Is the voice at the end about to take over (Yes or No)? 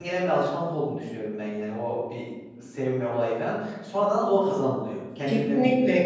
Yes